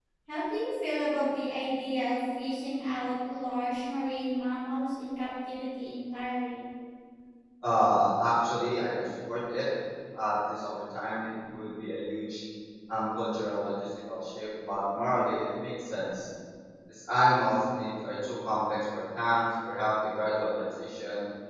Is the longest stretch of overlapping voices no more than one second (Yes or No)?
Yes